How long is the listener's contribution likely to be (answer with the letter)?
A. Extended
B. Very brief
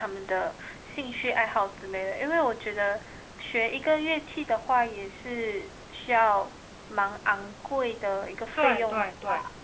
A